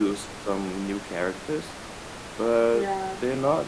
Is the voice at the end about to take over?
Yes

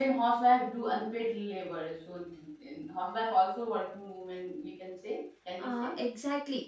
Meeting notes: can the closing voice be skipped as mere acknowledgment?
No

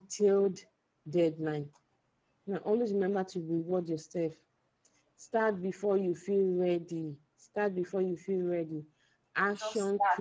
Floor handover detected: No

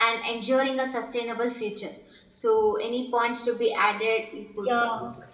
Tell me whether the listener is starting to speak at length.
Yes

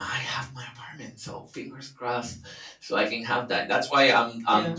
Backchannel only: Yes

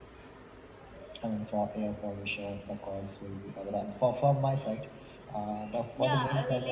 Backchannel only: No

